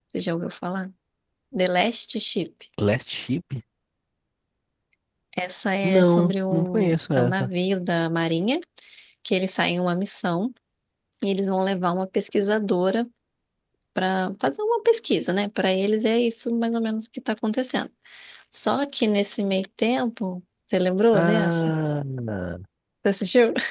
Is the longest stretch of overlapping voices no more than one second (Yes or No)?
No